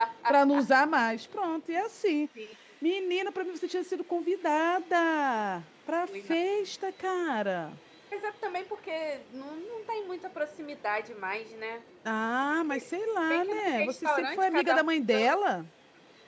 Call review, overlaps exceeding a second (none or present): present